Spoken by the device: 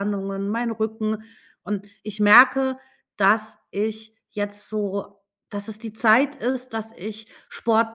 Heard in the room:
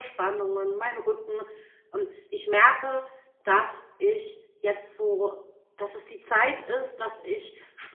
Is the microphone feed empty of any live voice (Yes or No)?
Yes